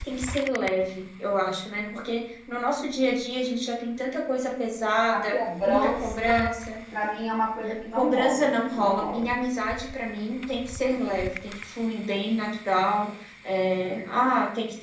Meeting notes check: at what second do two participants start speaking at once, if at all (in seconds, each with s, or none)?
5.1 s